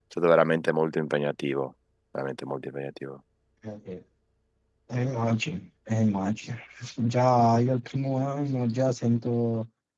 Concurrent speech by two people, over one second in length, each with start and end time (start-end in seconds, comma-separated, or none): none